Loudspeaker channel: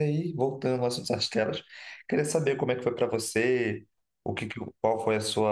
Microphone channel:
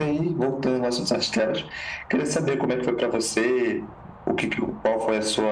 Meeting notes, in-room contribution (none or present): none